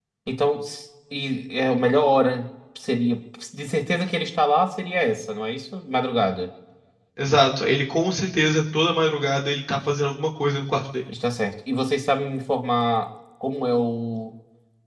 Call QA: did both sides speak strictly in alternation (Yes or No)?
Yes